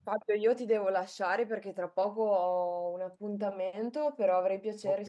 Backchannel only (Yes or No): Yes